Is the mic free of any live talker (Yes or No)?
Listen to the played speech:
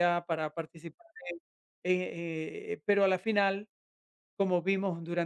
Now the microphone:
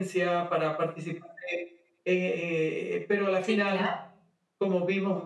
No